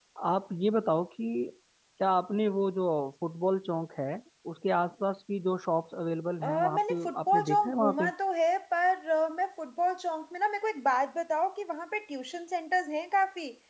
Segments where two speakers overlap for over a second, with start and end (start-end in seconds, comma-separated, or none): 6.4-8.1